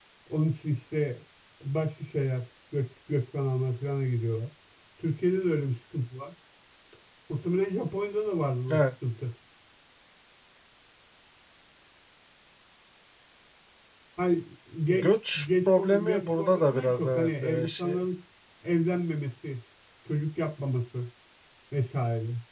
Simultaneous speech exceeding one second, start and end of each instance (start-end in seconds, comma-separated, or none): 14.9-18.0